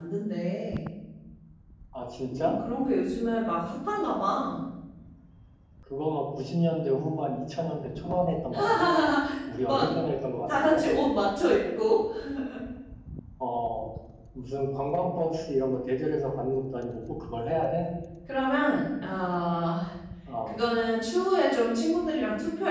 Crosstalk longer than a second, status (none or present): none